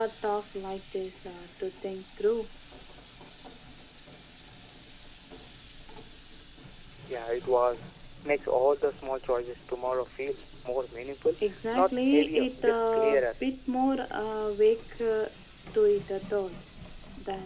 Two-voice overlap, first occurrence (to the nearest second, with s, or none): 12 s